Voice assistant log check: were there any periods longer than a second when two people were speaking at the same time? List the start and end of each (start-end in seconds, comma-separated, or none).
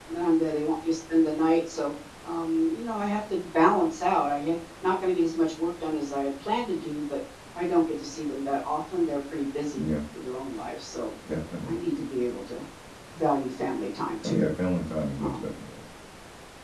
none